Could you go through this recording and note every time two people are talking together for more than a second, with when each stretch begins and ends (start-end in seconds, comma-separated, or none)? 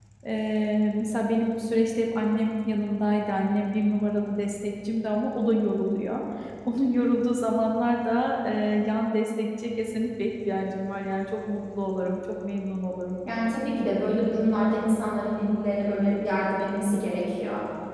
none